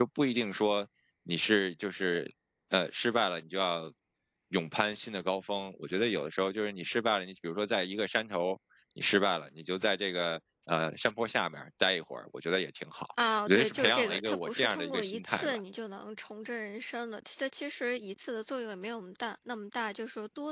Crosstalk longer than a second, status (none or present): present